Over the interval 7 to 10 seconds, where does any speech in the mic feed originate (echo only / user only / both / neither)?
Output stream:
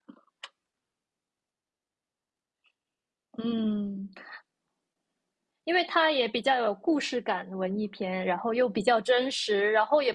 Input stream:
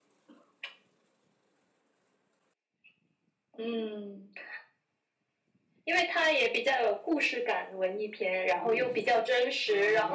both